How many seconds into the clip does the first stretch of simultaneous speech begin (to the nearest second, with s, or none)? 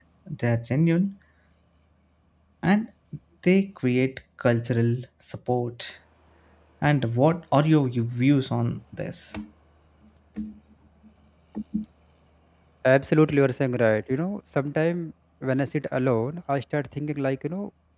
none